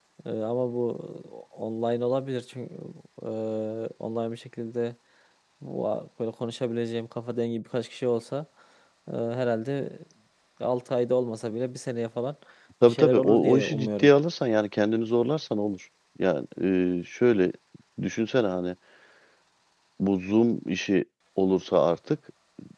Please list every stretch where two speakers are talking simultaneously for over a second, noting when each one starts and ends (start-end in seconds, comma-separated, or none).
12.9-14.1